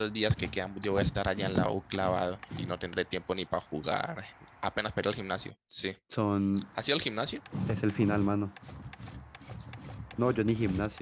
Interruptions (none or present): none